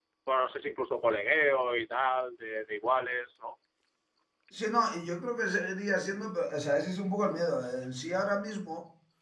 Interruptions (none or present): none